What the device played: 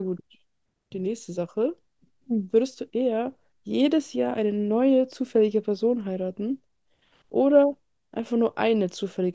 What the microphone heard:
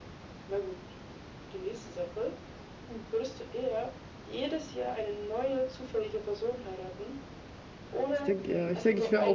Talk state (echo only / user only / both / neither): both